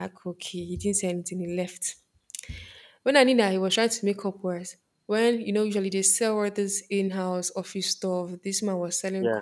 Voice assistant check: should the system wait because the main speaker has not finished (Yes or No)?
Yes